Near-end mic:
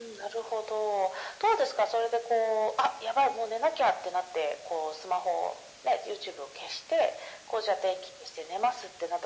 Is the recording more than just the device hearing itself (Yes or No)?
No